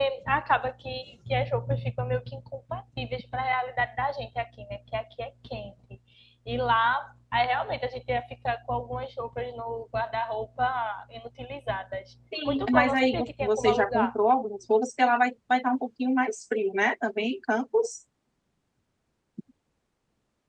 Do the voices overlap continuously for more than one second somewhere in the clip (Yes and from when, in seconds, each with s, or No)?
Yes, from 12.3 s